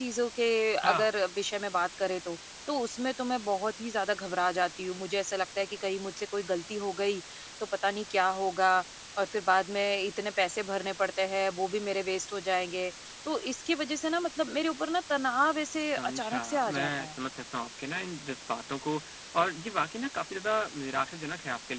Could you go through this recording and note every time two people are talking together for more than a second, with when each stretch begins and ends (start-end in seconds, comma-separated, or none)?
15.7-17.1